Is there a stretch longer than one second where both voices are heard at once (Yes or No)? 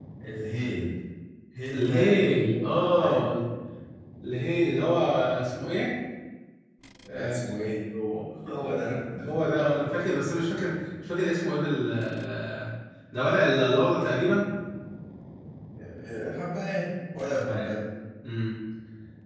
Yes